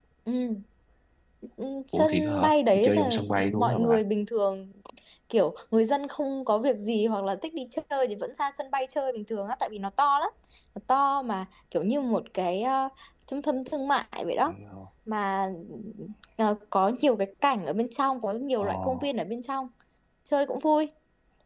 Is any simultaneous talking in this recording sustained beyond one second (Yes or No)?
Yes